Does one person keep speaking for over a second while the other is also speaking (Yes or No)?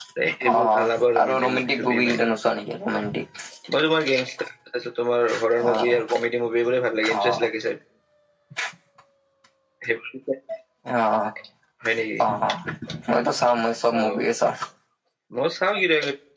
Yes